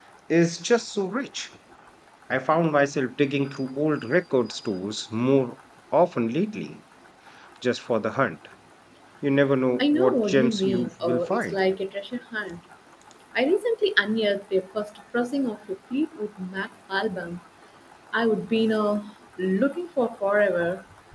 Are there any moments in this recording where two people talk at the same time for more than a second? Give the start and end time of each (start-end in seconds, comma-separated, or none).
9.8-11.6